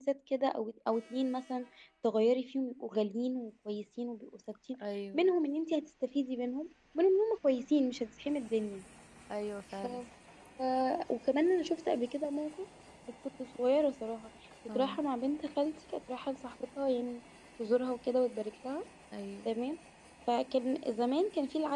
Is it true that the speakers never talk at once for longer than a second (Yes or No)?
Yes